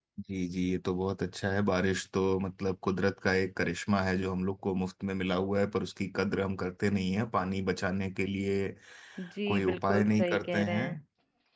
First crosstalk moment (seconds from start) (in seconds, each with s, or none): 9.5 s